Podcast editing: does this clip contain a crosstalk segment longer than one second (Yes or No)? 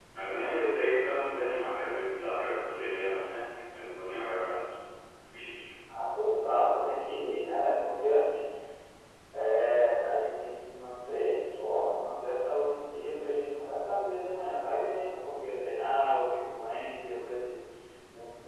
No